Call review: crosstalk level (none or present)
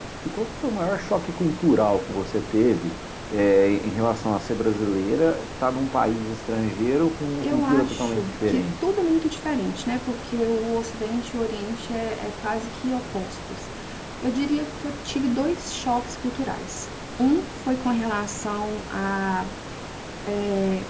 present